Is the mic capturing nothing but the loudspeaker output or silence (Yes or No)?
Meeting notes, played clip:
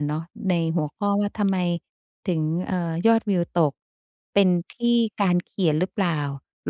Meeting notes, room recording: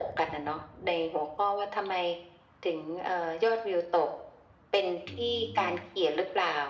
No